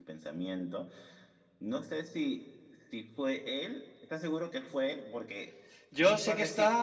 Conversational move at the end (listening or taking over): taking over